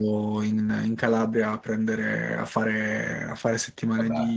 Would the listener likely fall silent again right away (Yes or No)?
Yes